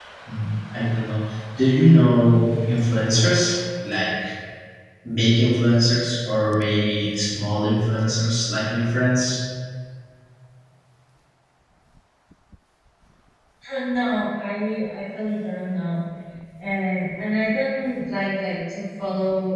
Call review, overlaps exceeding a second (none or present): none